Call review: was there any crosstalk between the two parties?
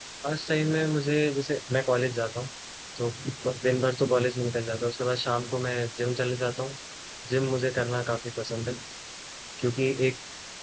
No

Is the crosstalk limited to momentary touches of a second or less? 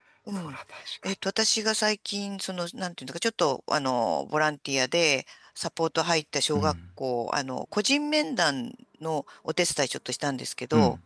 Yes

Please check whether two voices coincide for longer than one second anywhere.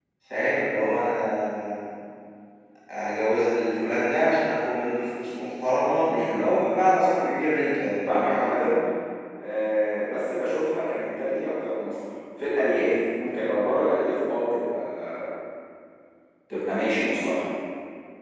No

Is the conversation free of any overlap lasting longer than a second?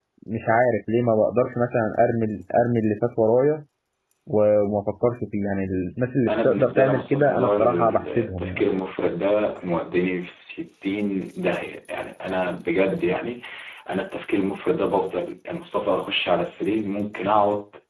No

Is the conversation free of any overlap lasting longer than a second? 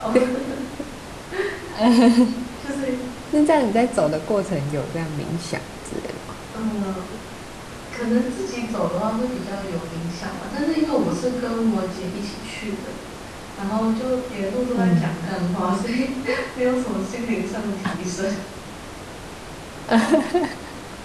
Yes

